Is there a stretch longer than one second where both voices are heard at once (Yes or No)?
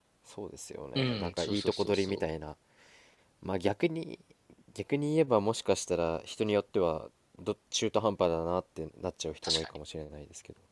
Yes